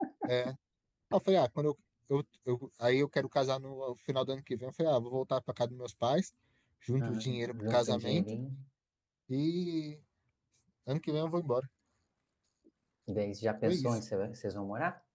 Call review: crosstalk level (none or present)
present